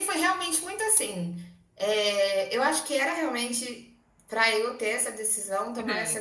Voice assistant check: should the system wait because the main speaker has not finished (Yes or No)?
Yes